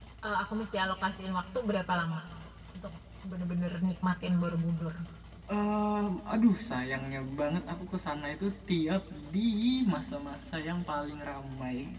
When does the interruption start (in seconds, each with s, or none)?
none